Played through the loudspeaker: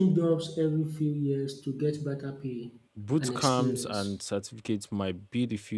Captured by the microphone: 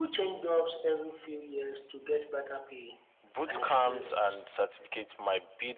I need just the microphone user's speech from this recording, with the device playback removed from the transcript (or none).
none